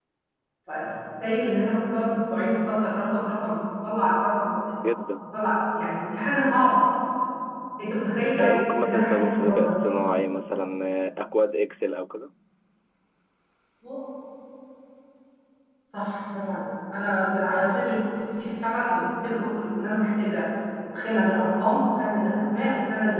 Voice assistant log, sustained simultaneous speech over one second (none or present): present